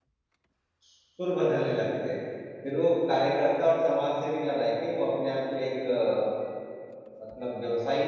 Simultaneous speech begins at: none

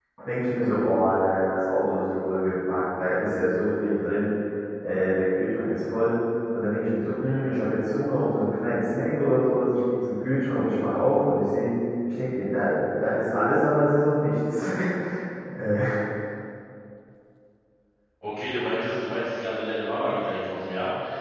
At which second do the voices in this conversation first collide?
none

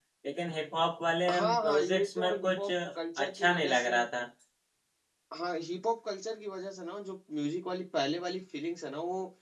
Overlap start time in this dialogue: 1.3 s

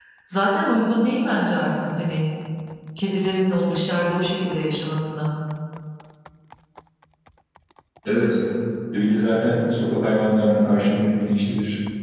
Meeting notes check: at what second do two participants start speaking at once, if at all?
none

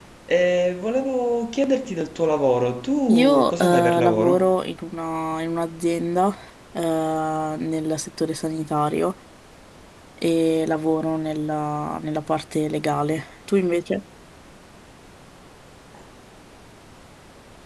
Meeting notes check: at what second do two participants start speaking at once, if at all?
3.1 s

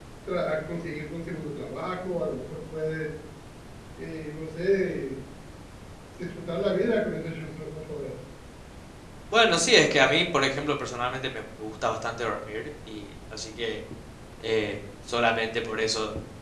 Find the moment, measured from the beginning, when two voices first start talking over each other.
none

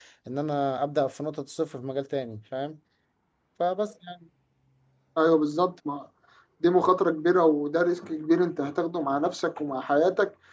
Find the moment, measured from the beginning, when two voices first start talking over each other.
none

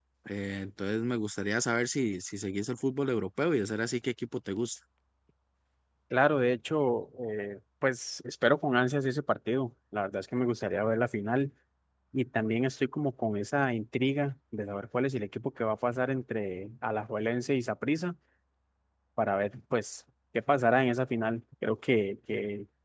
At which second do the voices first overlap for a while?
none

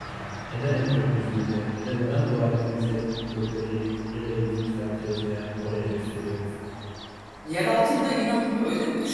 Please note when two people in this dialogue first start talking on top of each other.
none

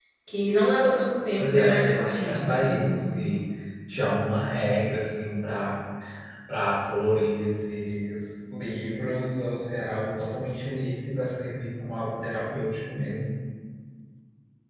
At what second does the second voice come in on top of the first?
1.4 s

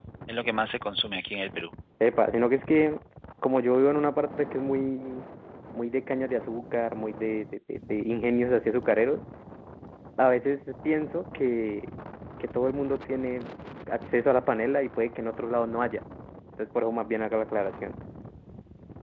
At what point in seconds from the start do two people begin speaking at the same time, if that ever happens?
none

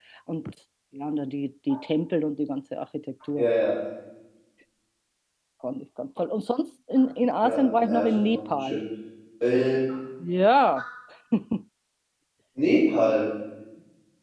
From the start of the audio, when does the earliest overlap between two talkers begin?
7.4 s

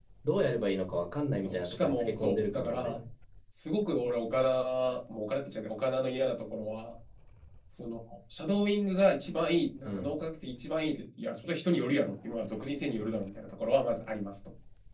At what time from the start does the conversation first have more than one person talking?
1.4 s

